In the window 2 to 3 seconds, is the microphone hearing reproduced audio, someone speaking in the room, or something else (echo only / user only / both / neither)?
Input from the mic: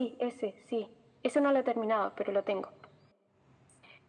echo only